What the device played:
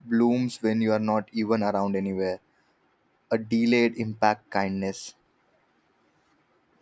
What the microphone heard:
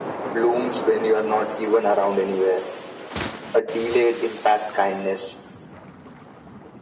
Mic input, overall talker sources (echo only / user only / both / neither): echo only